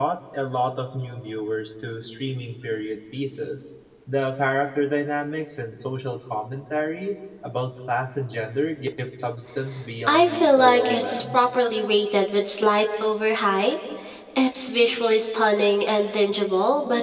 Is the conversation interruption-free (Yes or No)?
No